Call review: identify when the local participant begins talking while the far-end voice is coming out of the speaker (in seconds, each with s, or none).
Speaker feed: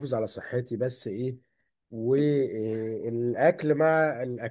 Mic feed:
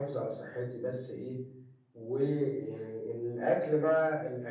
none